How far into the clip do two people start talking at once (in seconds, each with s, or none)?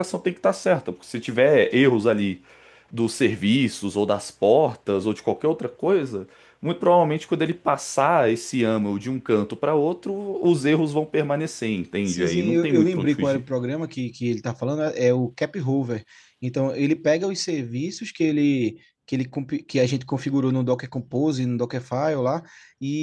12.1 s